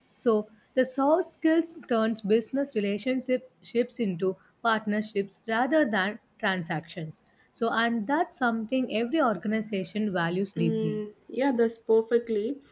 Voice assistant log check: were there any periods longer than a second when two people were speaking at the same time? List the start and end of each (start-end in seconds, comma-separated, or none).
none